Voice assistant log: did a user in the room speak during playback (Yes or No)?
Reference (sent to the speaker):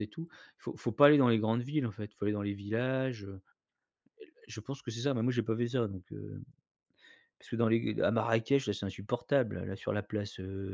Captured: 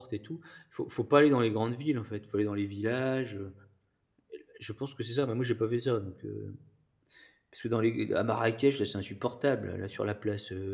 No